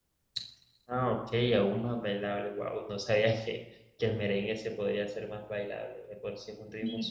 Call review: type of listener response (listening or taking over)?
taking over